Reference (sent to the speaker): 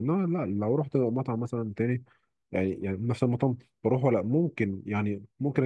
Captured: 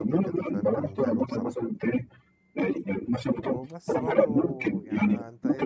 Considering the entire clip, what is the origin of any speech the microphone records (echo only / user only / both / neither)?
both